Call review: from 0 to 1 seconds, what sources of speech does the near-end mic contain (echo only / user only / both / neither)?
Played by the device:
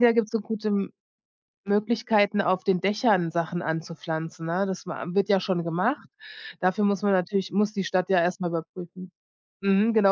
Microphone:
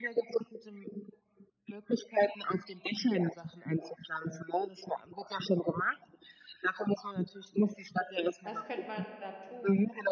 echo only